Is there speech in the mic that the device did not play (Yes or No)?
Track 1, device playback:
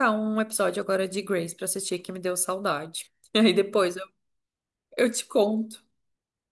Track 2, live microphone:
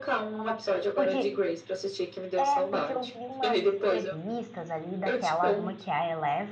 Yes